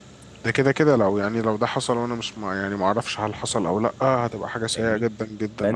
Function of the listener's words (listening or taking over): taking over